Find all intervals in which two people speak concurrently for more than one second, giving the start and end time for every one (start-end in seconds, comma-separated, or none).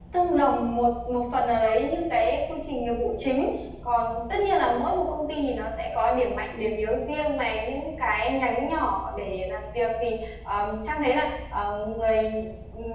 none